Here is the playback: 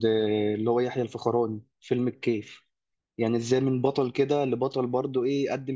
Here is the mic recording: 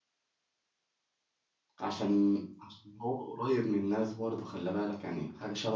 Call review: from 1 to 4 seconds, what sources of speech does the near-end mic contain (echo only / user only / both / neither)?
user only